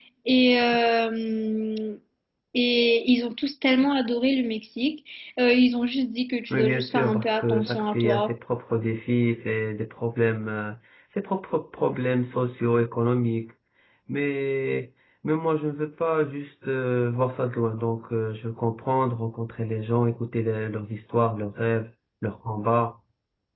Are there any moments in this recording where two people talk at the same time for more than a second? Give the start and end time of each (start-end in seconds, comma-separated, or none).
6.5-8.3